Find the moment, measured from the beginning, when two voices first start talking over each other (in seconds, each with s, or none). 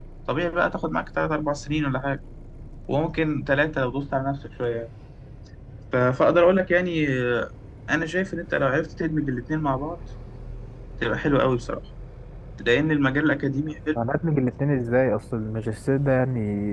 none